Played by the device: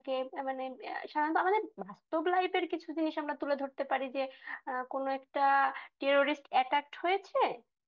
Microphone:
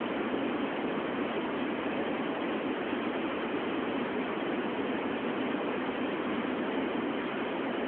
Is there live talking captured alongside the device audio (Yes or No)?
No